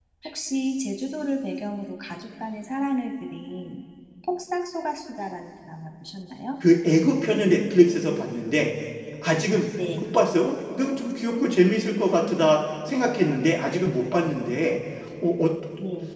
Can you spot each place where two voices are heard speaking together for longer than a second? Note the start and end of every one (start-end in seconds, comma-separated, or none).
none